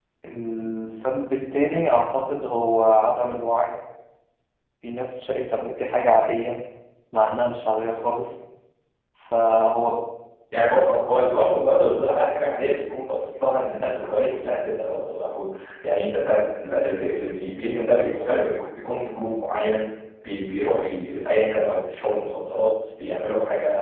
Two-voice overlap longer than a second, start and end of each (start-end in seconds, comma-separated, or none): none